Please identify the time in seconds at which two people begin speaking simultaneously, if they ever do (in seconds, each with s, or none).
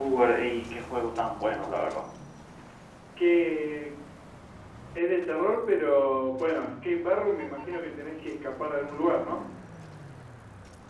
none